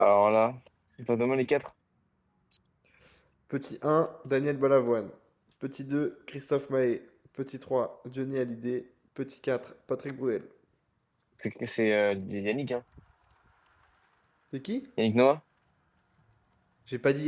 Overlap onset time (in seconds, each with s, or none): none